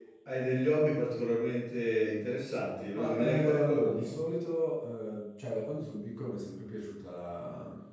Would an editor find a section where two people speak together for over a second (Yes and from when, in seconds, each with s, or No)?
Yes, from 3.0 s